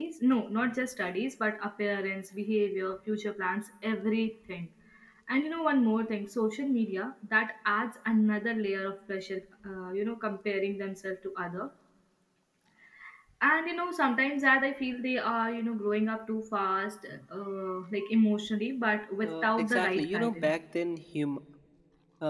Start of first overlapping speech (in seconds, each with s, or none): 19.2 s